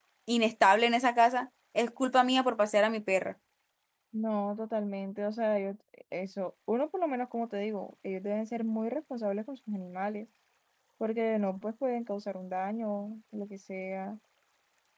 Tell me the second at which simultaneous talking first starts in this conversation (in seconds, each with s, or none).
none